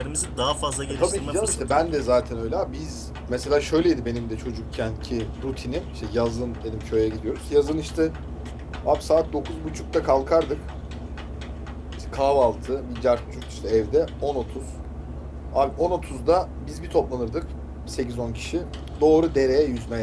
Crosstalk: present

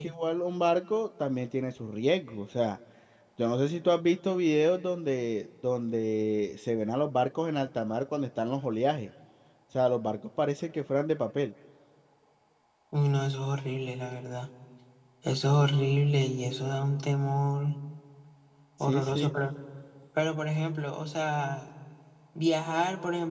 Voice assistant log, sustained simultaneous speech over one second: none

